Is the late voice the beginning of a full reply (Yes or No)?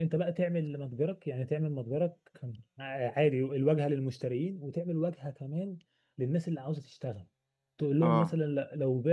No